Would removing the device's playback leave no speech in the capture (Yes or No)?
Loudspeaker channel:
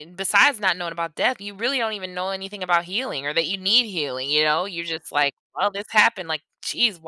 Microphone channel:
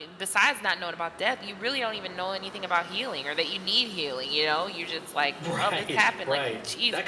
No